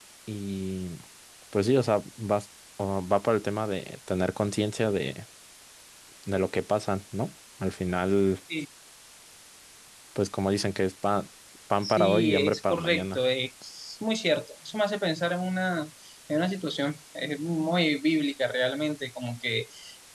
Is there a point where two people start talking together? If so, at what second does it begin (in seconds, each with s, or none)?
11.8 s